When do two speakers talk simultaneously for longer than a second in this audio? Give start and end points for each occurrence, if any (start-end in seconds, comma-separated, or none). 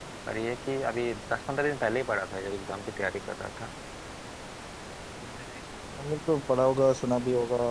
none